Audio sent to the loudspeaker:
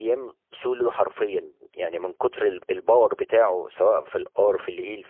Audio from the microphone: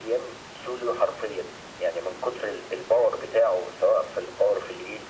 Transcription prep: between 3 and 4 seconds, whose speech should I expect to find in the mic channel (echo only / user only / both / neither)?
echo only